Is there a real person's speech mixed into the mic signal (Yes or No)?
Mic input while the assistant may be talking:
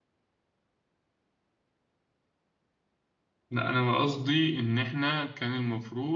Yes